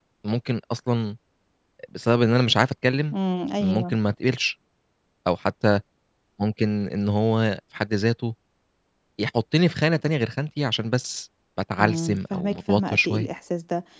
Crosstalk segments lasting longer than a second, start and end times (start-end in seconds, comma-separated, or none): 11.8-13.3